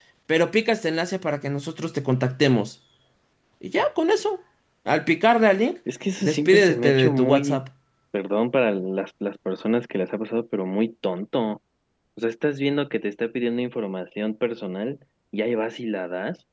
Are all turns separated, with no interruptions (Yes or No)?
No